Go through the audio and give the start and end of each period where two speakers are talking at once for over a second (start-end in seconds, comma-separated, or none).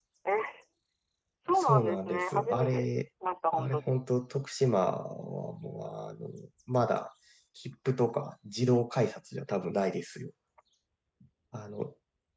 1.5-2.9